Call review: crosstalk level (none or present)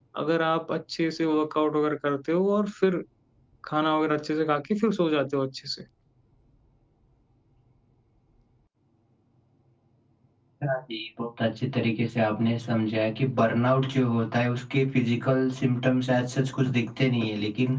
none